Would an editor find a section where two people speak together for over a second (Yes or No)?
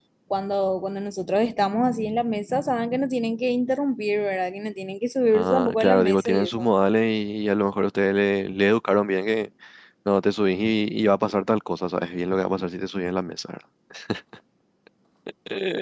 Yes